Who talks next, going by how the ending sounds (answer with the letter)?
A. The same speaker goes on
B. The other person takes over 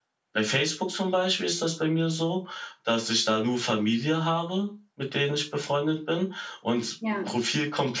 A